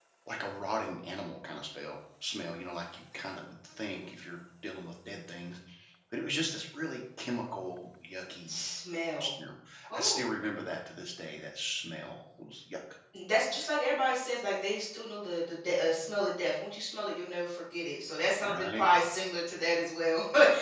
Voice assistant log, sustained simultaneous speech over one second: none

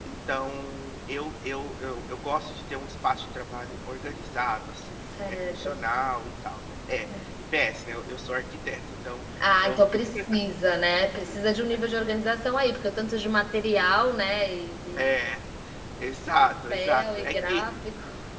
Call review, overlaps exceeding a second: present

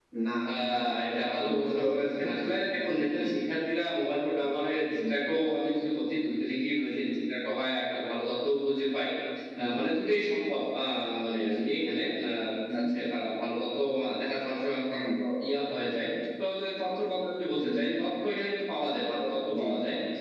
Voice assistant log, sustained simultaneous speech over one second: present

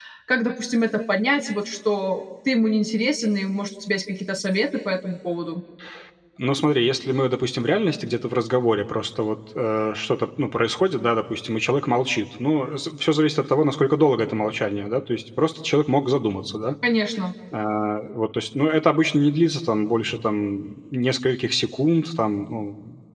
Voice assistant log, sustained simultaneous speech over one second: none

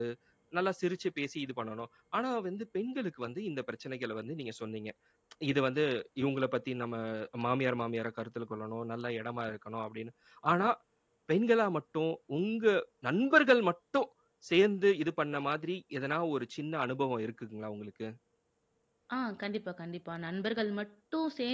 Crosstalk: none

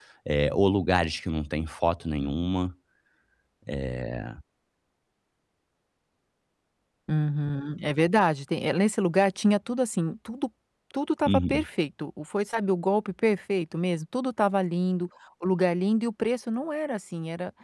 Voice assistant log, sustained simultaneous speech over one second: none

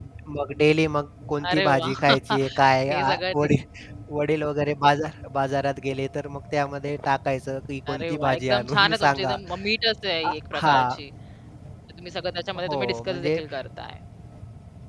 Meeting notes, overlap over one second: present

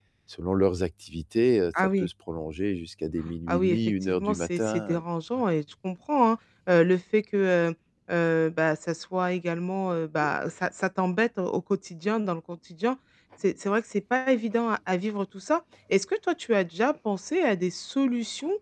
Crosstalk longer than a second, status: present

